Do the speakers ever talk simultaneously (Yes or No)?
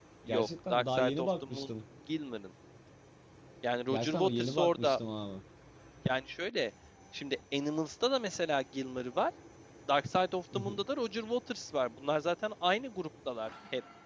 Yes